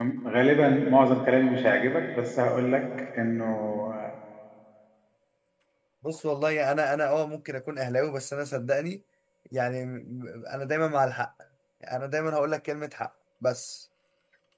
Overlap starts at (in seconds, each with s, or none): none